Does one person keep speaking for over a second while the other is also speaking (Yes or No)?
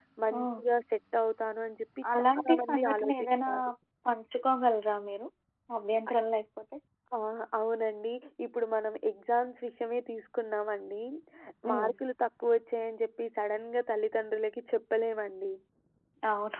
Yes